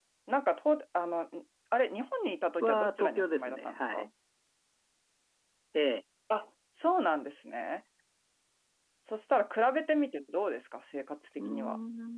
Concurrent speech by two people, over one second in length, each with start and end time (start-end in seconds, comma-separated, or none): 2.6-4.1